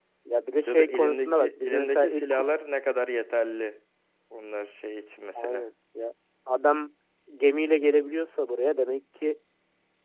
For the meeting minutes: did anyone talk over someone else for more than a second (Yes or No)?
Yes